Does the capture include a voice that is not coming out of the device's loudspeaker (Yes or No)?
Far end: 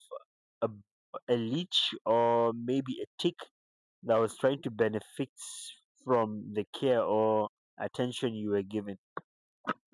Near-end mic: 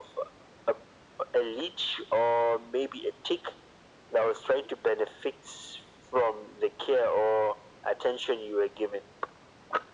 No